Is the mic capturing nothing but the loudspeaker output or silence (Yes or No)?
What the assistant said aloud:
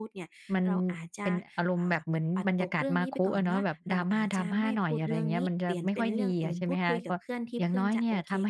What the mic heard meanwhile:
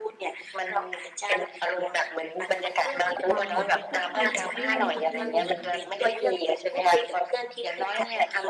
No